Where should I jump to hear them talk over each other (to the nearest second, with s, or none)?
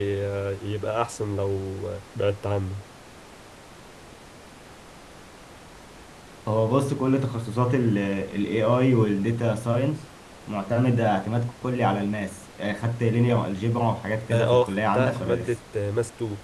14 s